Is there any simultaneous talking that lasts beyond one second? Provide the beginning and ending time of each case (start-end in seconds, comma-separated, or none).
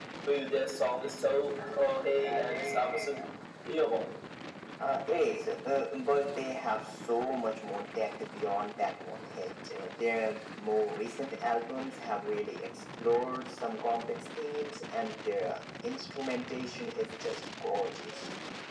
none